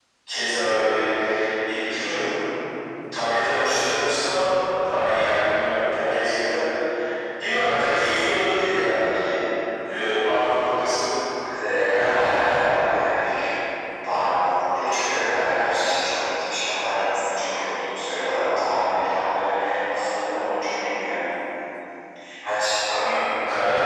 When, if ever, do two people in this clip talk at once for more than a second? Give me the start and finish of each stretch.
none

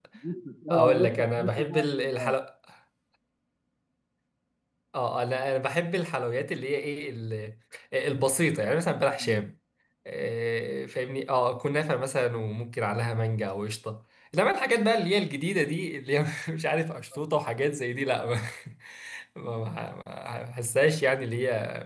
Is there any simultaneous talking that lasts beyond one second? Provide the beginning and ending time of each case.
0.7-2.3

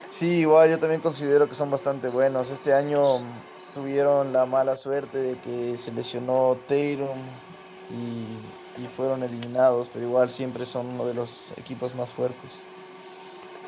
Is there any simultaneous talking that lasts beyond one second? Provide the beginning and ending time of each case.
none

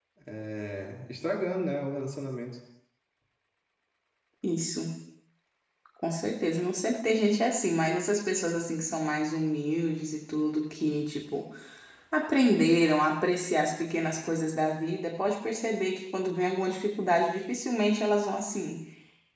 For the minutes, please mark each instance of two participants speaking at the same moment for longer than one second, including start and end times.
none

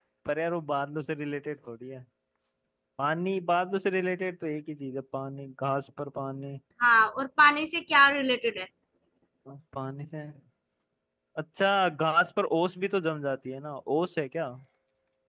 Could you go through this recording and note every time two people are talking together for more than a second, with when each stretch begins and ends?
none

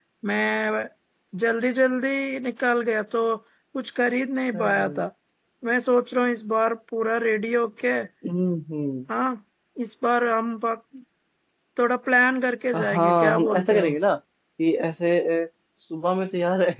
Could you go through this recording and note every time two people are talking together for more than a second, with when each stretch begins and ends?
12.8-14.0

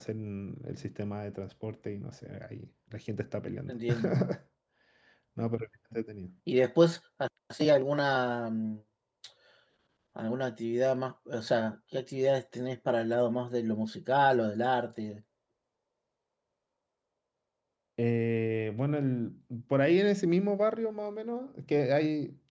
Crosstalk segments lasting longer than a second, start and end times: none

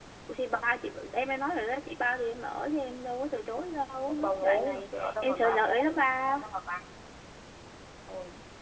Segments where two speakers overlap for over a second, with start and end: 4.1-5.8

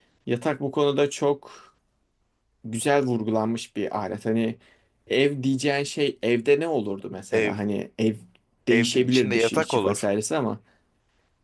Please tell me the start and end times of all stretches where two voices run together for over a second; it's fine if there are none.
8.7-10.0

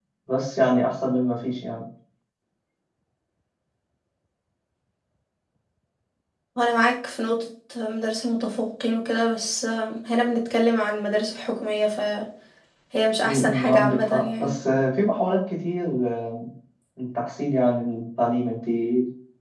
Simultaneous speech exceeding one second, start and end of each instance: 13.2-14.5

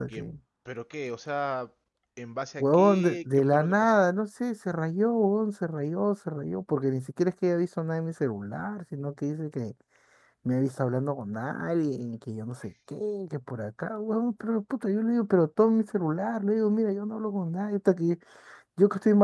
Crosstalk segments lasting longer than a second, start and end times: 2.6-3.9

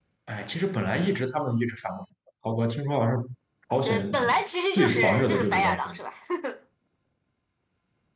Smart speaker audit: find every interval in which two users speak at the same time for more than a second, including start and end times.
4.7-6.0

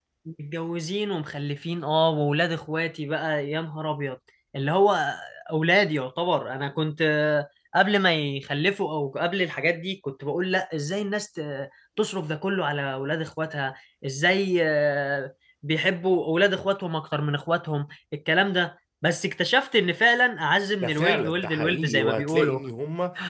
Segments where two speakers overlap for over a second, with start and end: 20.8-22.6

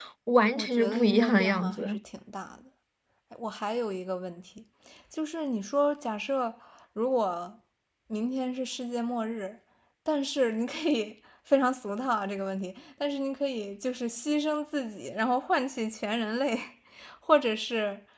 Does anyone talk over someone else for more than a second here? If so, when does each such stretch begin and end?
0.5-2.0

